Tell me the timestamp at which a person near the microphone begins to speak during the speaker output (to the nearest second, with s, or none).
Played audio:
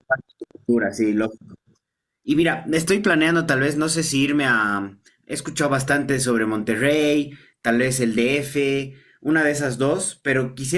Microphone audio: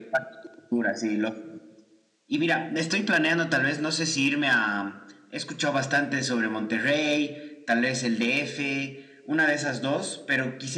none